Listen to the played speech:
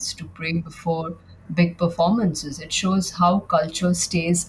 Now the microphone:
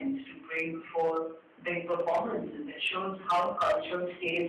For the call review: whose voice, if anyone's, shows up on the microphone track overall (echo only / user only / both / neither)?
echo only